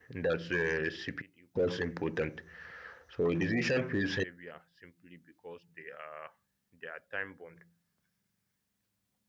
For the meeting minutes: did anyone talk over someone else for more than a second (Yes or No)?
No